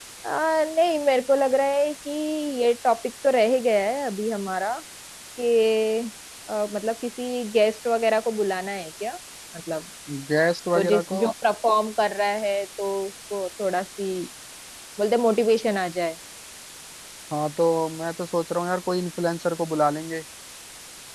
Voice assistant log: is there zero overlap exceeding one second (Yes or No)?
Yes